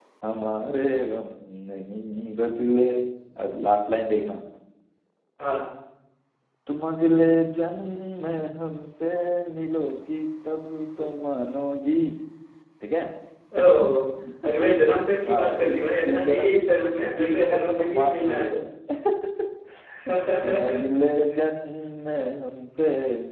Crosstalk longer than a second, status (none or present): present